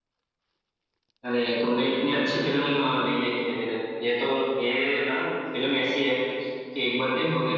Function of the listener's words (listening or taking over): listening